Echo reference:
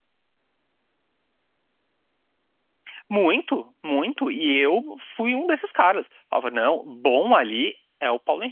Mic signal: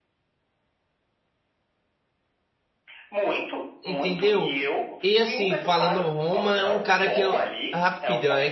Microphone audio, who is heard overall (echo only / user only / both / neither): both